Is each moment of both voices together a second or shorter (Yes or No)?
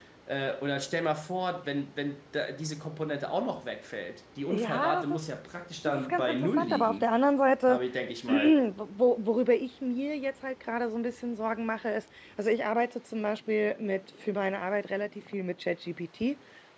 No